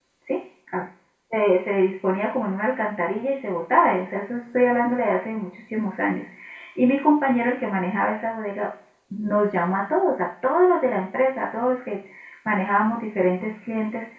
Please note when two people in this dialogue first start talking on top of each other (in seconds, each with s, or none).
none